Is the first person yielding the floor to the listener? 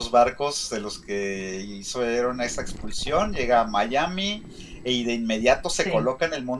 No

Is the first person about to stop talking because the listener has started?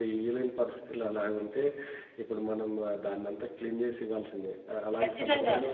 No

